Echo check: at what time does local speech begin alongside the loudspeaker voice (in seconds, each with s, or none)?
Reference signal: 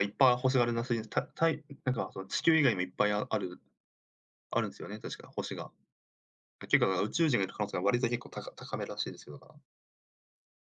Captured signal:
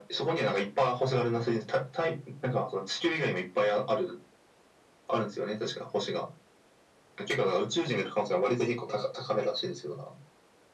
none